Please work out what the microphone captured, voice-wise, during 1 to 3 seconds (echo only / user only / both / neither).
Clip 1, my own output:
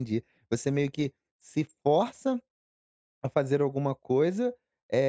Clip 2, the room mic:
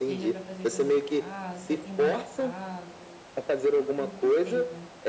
both